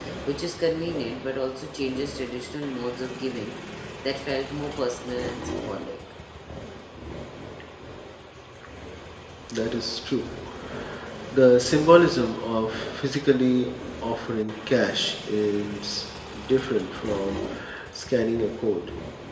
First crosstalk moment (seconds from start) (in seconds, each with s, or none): none